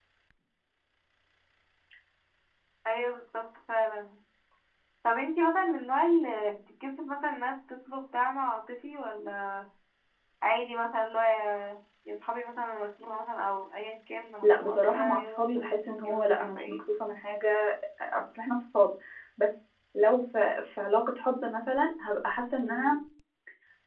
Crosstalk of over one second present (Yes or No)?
Yes